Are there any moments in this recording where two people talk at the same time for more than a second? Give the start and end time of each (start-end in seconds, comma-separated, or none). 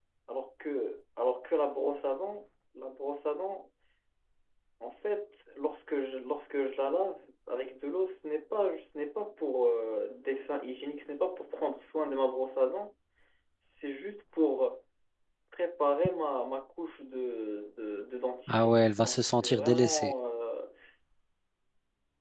18.5-20.1